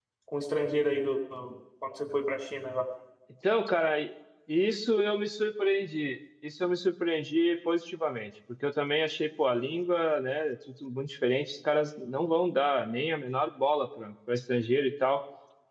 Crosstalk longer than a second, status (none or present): none